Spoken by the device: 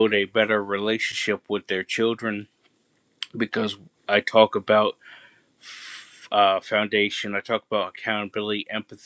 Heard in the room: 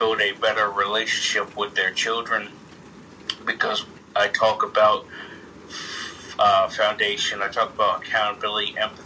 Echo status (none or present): present